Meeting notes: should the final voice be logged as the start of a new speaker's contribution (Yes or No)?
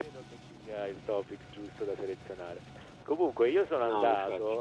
No